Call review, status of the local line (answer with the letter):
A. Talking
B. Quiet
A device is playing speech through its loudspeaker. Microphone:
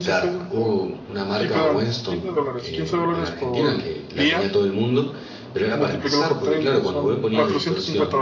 A